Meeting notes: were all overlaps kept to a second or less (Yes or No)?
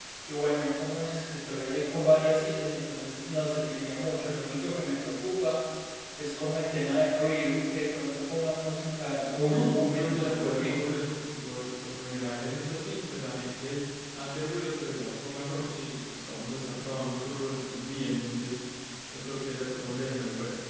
No